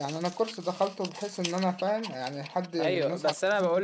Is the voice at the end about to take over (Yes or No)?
Yes